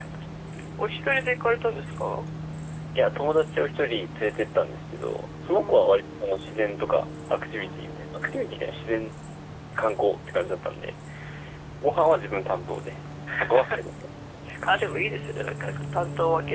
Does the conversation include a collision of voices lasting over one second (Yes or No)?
No